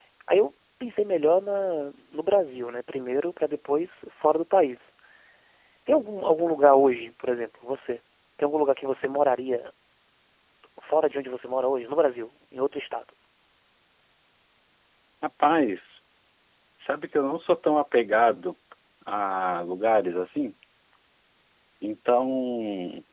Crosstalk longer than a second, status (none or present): none